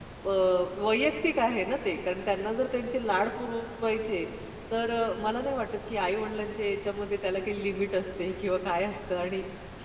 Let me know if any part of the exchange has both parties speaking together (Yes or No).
No